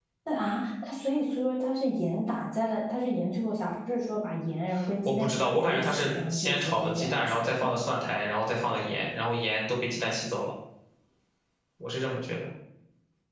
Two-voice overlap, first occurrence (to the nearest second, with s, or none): 5 s